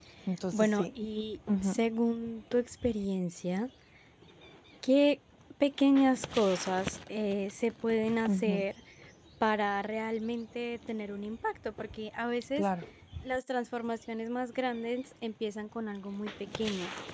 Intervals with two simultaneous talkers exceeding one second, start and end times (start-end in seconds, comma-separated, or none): none